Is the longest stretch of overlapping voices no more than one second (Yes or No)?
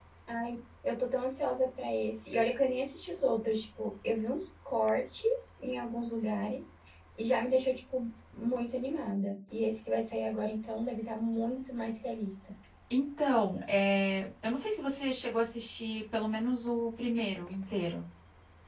Yes